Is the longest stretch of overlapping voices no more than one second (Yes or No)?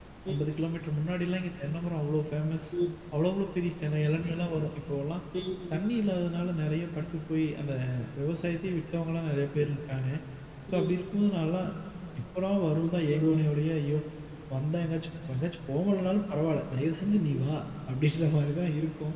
Yes